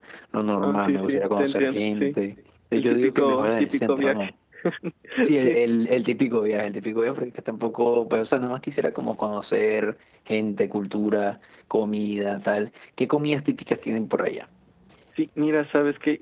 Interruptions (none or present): present